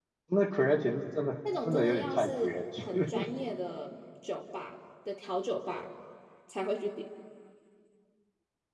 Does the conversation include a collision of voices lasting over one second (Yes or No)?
Yes